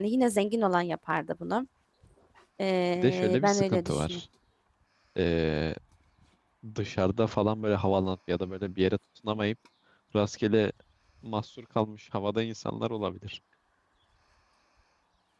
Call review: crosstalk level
present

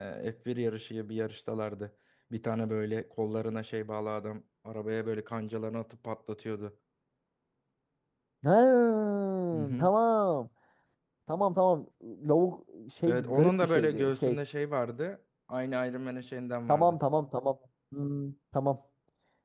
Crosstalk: present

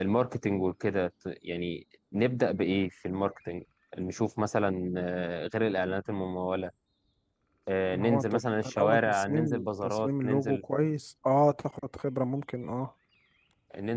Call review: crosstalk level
present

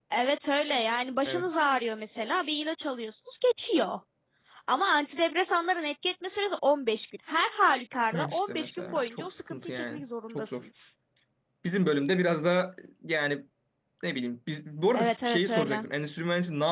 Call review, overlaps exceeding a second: present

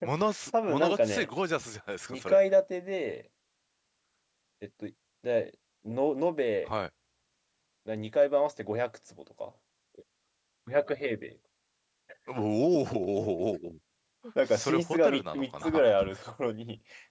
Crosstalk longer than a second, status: present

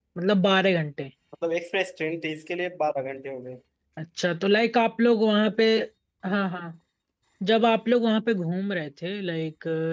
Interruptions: none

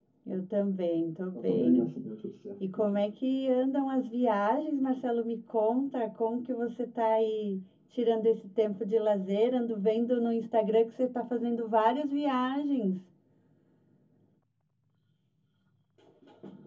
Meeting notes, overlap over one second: none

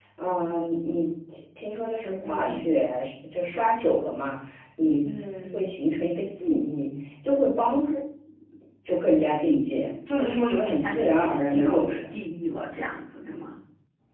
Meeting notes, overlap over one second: present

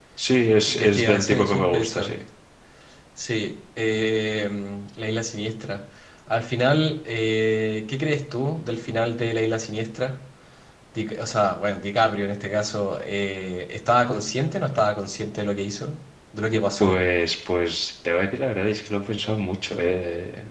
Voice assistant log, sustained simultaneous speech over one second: present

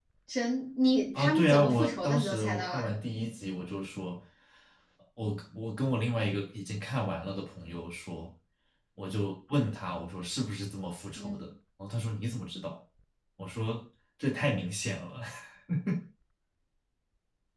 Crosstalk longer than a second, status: present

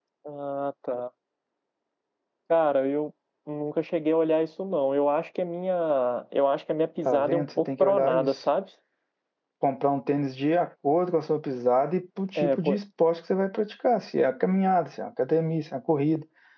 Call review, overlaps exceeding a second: present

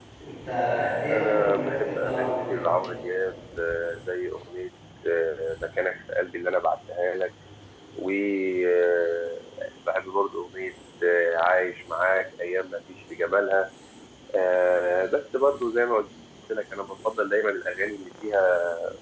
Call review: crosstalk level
present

